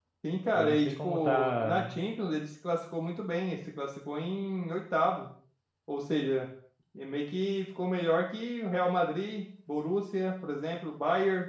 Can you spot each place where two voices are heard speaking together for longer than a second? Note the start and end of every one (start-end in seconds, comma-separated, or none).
0.5-2.0